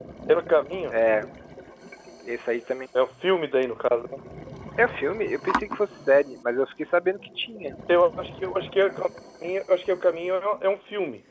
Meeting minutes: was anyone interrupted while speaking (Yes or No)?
No